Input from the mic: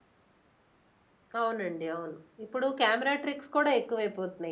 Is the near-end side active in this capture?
Yes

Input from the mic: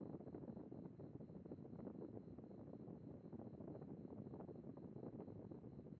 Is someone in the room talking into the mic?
No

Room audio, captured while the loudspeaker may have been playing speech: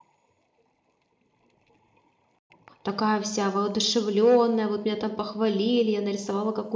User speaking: Yes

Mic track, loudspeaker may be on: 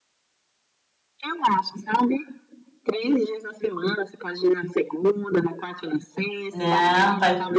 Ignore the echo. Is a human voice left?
Yes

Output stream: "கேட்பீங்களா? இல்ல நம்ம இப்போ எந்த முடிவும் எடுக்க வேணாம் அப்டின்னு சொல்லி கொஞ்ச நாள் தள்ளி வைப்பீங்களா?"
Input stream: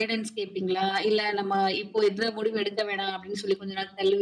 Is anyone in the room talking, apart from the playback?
No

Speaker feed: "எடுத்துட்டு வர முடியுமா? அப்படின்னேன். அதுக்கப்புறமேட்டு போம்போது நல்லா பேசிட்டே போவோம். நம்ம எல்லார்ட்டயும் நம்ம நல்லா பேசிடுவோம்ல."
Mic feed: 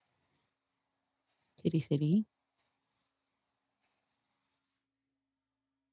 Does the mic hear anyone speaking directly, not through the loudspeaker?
Yes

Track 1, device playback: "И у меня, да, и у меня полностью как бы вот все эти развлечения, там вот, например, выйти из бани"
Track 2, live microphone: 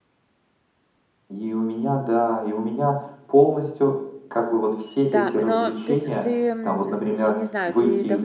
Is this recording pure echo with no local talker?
No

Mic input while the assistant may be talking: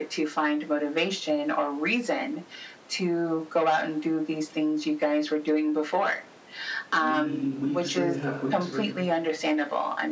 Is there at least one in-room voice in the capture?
Yes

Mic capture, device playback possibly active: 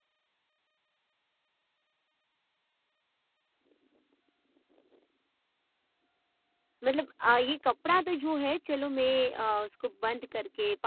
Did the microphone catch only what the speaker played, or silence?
No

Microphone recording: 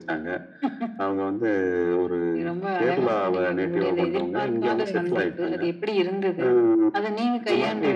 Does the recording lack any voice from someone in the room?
No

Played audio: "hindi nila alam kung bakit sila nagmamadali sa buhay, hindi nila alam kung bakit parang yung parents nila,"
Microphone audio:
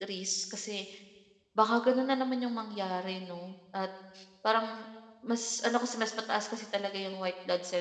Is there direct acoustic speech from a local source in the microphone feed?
Yes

